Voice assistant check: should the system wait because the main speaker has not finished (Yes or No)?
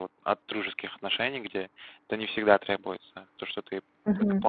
No